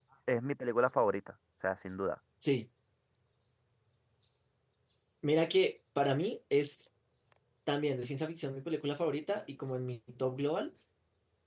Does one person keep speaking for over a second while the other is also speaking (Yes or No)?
No